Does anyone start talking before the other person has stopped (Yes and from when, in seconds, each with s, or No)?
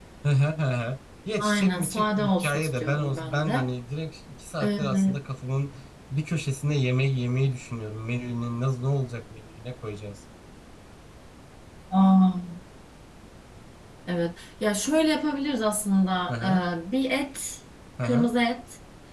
Yes, from 1.4 s